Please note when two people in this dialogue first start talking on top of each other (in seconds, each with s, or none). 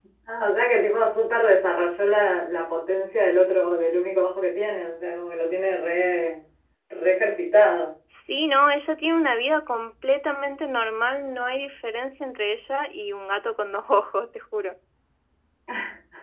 none